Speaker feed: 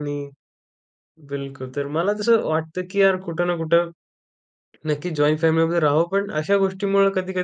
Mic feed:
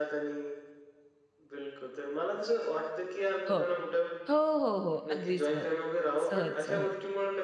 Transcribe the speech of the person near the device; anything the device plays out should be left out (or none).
हो. हो, हो, हो अगदी सहज, सहज, सहज.